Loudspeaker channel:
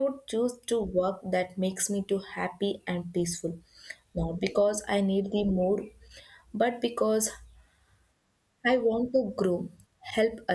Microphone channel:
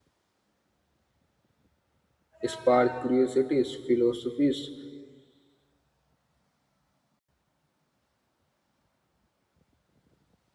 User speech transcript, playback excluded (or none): spark curiosities, philosophies,